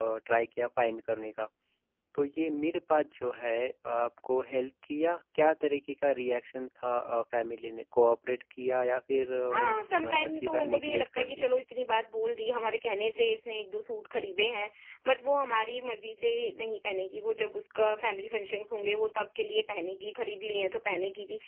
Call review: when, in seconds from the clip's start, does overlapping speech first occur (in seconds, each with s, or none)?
9.5 s